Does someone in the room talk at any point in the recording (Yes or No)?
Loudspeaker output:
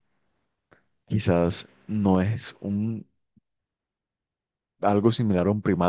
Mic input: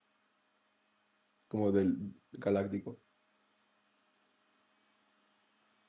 Yes